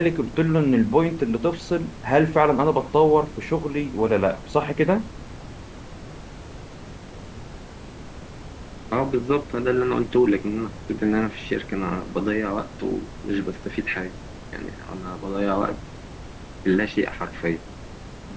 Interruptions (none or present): none